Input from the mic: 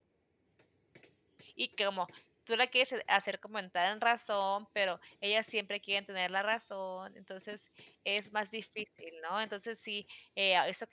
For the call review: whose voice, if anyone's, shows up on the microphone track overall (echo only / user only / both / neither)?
user only